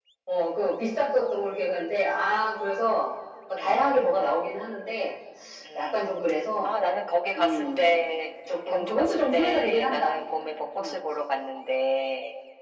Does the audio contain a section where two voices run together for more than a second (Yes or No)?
Yes